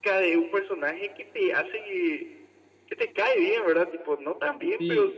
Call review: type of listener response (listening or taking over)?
listening